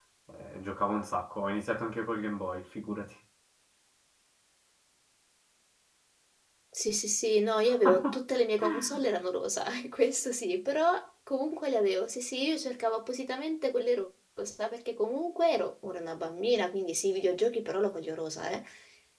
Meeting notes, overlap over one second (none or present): none